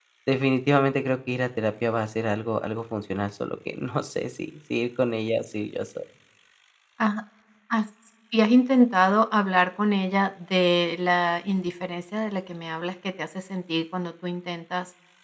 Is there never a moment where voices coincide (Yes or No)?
Yes